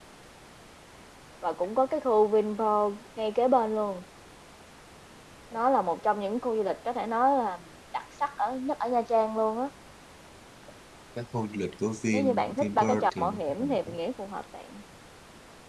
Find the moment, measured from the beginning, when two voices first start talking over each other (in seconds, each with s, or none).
12.1 s